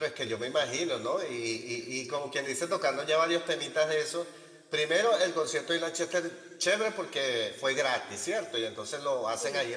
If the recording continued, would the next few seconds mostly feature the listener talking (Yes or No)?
No